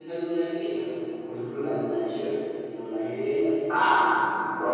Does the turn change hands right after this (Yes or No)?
Yes